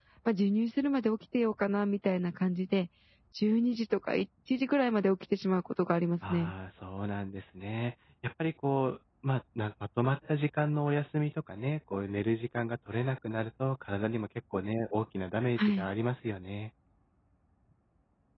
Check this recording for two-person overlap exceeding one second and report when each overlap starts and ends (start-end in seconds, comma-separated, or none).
none